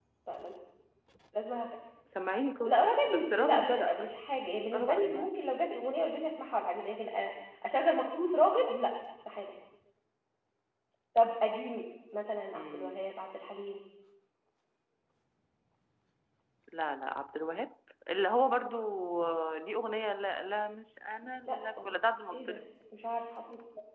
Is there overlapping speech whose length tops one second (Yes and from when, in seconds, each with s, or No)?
Yes, from 2.6 s